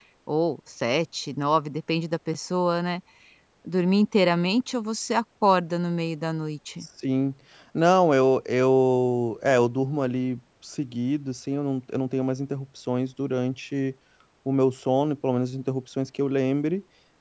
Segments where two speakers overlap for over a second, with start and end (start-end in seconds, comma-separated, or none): none